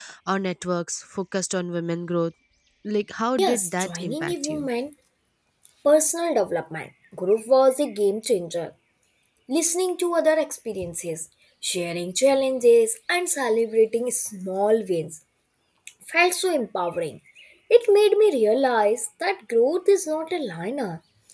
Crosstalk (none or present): present